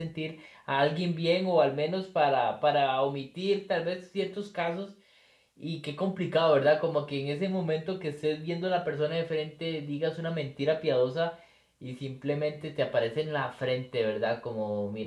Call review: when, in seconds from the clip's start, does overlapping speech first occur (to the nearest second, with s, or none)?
none